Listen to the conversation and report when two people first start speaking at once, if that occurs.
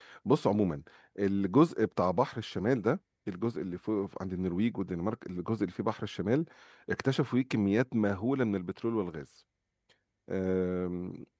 none

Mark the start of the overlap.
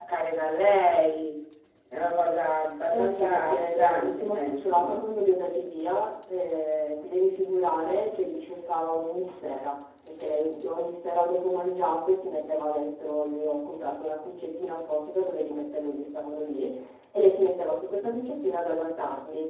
2.9 s

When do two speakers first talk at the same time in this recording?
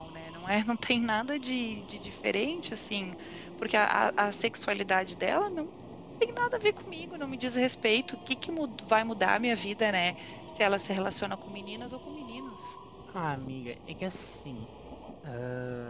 none

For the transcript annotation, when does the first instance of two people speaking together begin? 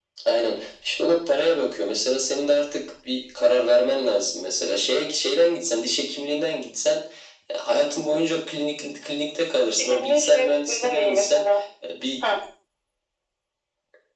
9.8 s

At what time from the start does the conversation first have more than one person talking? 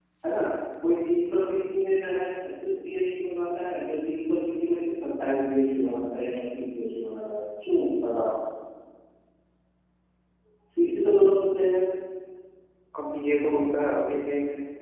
none

